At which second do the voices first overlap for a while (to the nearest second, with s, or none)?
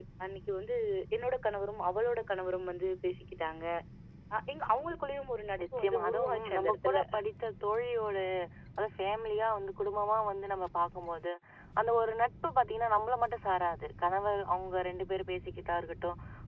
6 s